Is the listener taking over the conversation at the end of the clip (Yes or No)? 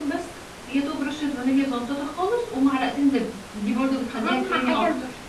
Yes